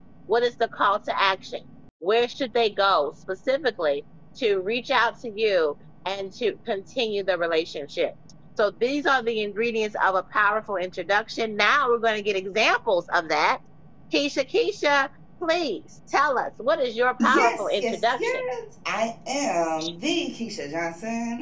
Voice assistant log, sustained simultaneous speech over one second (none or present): present